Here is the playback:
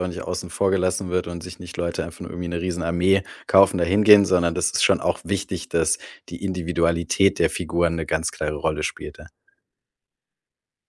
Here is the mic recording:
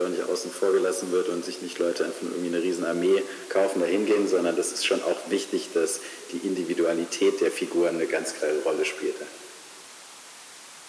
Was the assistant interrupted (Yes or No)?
No